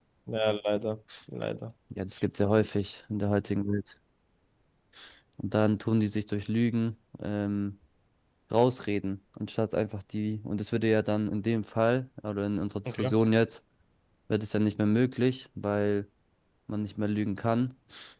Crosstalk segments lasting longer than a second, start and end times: none

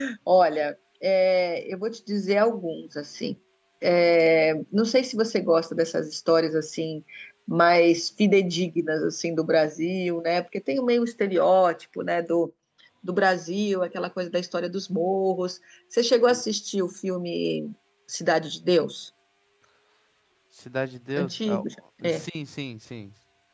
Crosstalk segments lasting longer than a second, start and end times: none

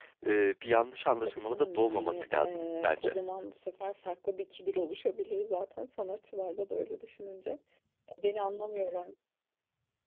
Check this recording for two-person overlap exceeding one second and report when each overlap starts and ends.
1.2-3.2

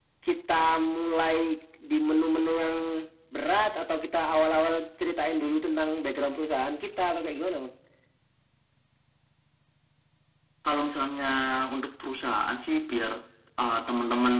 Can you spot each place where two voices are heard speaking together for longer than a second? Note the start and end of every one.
none

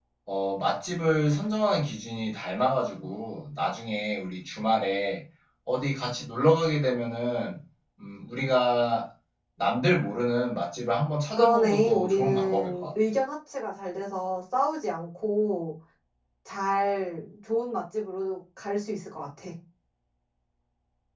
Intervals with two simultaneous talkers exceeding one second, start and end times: 11.4-12.9

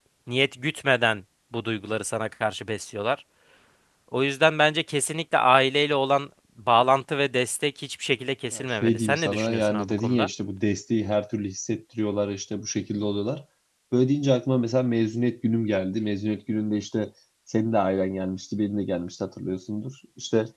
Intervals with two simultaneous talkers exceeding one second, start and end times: 8.5-10.3

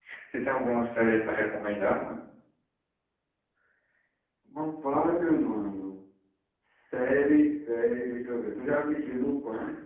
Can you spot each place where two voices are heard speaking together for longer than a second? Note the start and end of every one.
none

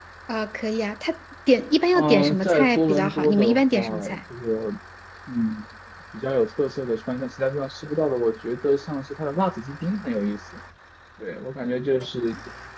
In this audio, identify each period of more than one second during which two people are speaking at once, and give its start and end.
2.0-4.2

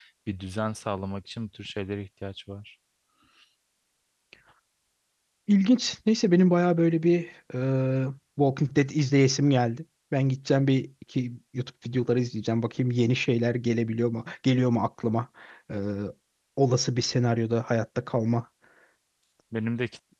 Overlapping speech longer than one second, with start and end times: none

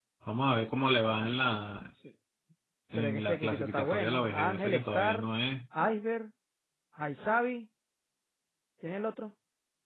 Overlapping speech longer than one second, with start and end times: 3.0-5.2

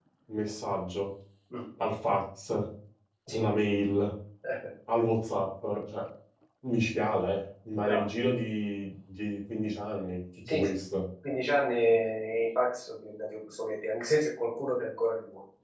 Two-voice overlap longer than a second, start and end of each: none

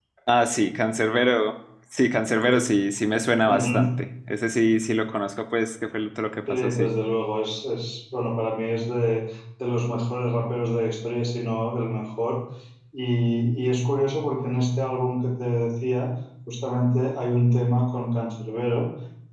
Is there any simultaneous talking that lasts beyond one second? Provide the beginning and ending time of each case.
none

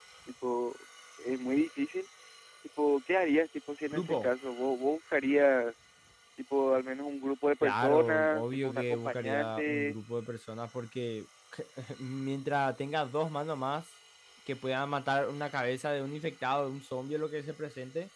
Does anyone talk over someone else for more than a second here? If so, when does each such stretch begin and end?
7.6-9.9

